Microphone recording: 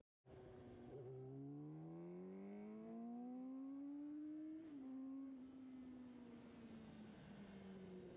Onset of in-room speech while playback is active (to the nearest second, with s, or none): none